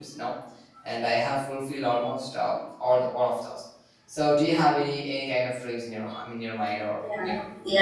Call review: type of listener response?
taking over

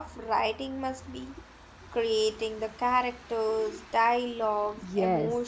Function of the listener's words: taking over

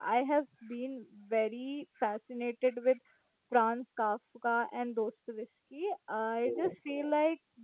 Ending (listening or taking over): listening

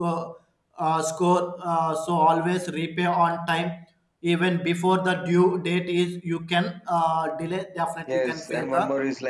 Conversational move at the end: taking over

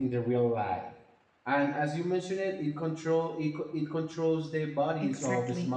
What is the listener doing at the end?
taking over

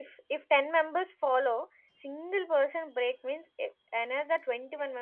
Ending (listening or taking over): taking over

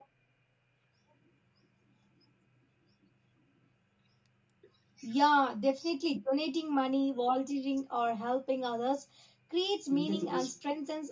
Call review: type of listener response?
listening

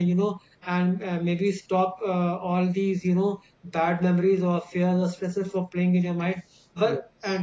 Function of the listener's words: listening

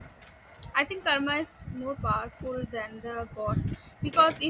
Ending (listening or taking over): listening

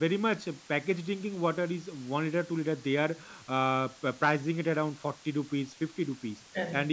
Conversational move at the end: listening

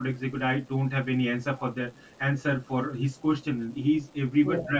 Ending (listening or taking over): listening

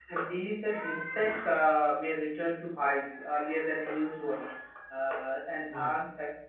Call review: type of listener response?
listening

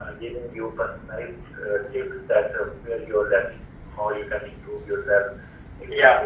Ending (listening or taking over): listening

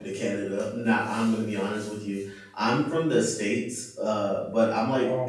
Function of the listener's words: listening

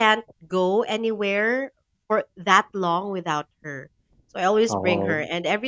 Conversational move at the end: listening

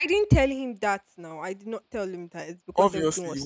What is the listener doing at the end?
taking over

